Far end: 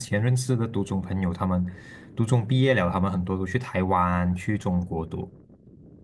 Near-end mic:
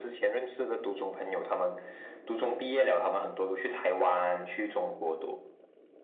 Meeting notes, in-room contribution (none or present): none